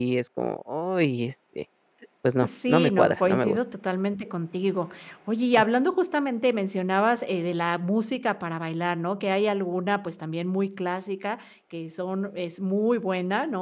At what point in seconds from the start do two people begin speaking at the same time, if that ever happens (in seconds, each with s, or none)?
2.4 s